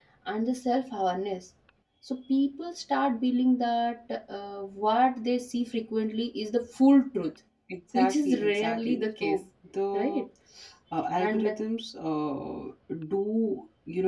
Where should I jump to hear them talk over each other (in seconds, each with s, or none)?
8.0 s